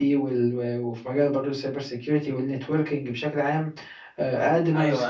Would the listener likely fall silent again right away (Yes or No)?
No